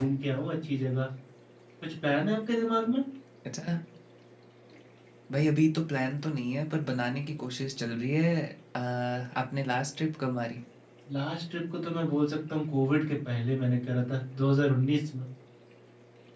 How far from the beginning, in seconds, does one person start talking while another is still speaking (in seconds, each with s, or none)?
none